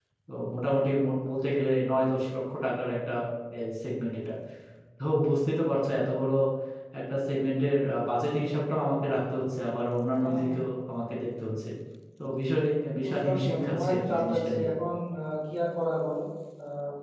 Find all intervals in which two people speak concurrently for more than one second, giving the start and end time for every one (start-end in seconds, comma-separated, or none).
13.1-14.7